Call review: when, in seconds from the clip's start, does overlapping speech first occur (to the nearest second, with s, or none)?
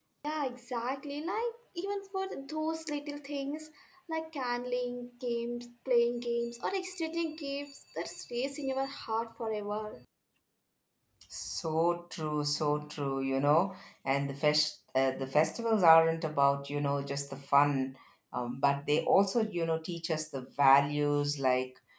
none